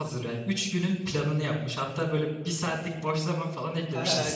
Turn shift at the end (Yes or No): Yes